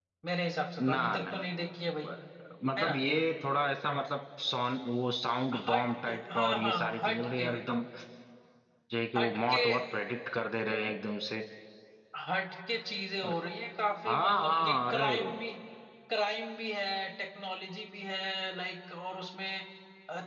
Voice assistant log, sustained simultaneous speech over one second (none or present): present